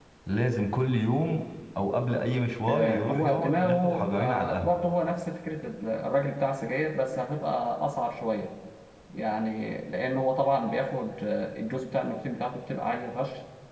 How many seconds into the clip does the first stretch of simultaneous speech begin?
2.7 s

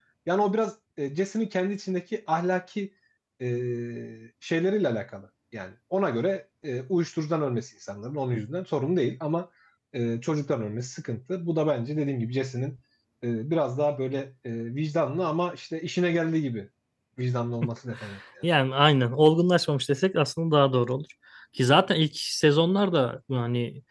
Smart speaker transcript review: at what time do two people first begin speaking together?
none

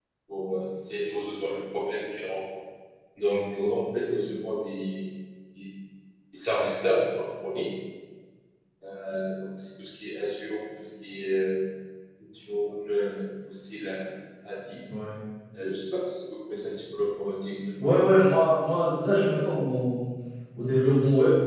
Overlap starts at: none

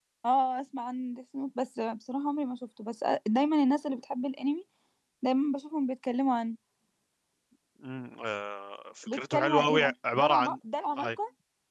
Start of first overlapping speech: 9.1 s

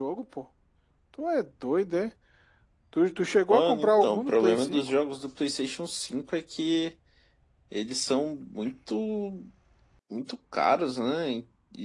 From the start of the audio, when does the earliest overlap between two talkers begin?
3.5 s

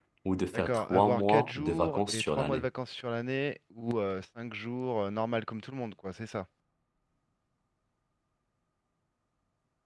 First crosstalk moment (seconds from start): 0.5 s

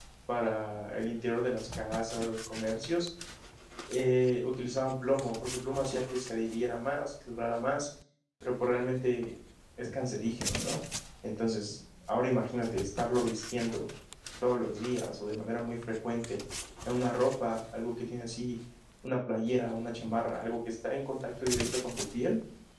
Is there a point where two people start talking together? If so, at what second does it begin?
none

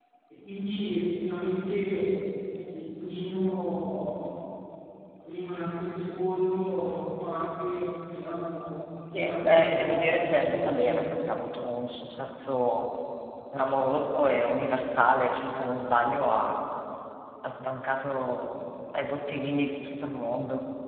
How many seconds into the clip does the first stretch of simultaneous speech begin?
9.0 s

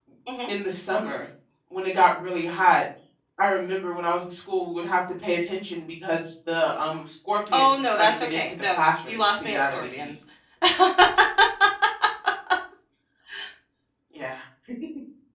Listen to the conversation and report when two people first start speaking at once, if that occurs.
7.5 s

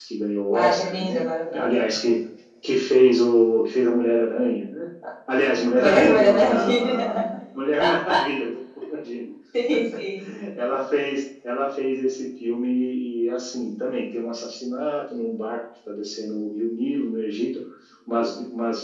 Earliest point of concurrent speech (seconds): 0.5 s

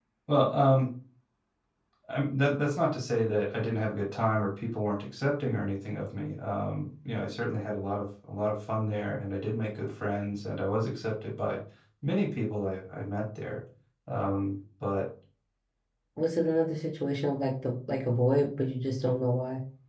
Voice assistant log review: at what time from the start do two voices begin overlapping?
none

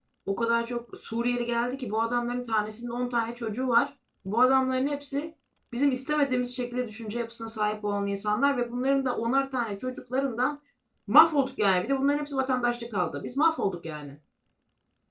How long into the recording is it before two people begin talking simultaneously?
none

